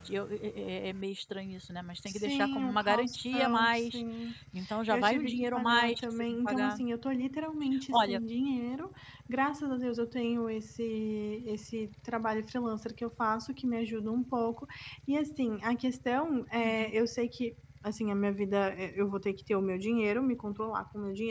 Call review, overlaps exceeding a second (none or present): present